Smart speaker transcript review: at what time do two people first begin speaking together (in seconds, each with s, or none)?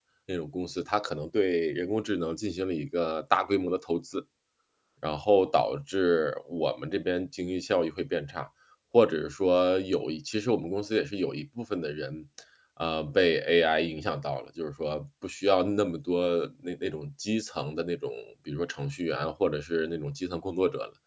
none